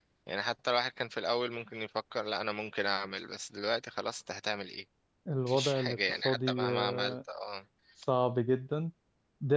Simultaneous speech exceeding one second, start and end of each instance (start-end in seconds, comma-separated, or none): 5.5-7.2